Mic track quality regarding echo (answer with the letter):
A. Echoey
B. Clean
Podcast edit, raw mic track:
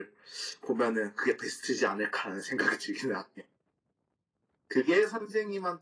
A